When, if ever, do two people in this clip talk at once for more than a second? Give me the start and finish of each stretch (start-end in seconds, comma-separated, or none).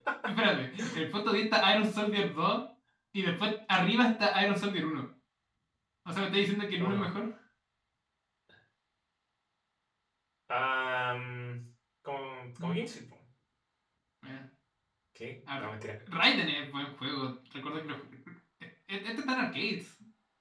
none